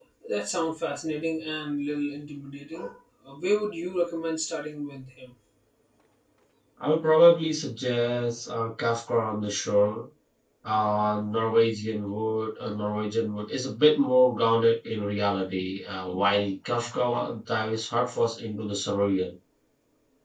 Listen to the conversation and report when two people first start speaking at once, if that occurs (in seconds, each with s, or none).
none